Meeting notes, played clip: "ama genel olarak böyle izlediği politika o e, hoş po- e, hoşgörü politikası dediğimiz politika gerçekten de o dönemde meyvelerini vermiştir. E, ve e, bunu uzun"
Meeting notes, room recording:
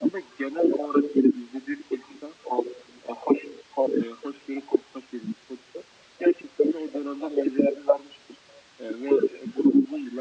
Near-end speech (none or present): none